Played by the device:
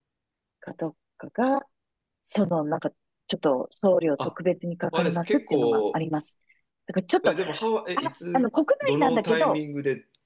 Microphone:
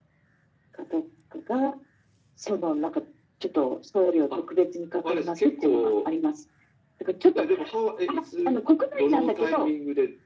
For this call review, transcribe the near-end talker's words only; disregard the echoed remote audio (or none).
none